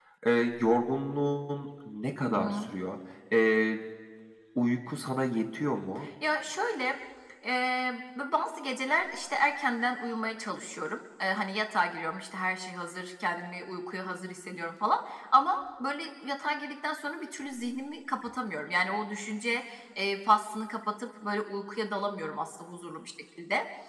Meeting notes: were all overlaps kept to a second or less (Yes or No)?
Yes